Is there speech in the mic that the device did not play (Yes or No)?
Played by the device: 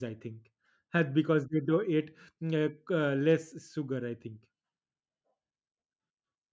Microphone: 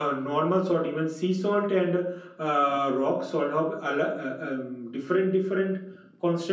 Yes